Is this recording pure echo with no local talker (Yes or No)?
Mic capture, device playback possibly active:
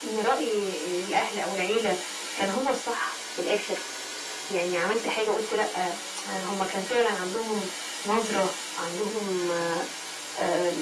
Yes